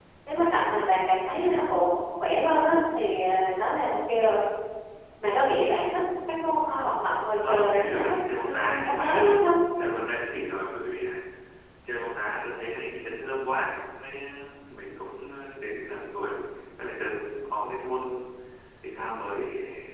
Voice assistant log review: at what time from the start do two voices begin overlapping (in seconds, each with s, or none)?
7.4 s